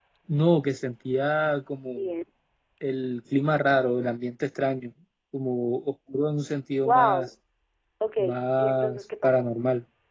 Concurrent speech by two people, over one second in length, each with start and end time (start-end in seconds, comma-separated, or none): 8.2-9.5